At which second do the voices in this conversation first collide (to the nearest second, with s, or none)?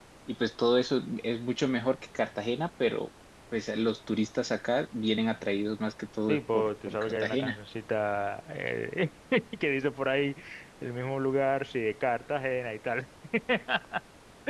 6 s